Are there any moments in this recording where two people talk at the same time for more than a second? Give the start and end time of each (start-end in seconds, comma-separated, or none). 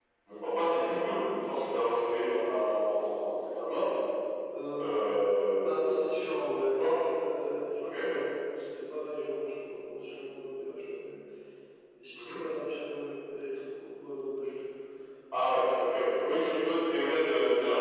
none